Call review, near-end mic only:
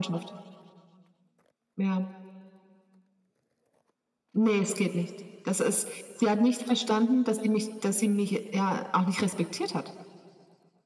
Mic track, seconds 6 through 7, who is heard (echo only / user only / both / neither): echo only